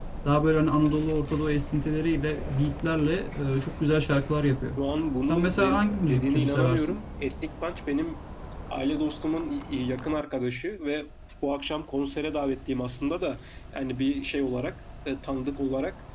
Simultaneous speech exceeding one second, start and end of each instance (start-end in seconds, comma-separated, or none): 5.2-7.0